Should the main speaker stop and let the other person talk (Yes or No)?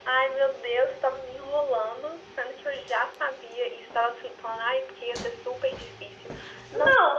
Yes